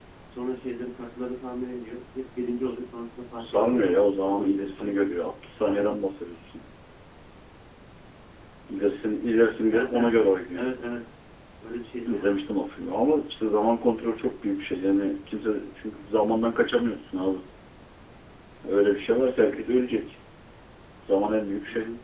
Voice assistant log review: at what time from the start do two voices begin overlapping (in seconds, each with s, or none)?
3.4 s